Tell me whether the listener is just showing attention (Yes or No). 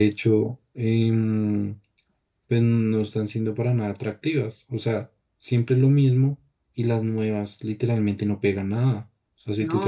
Yes